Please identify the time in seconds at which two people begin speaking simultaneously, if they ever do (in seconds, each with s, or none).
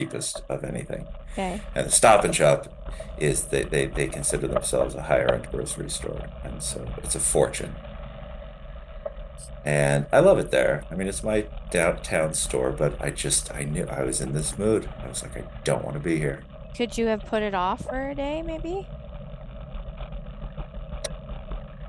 none